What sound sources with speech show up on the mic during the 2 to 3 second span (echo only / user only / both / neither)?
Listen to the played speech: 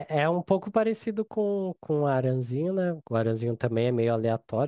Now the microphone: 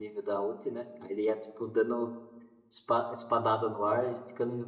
user only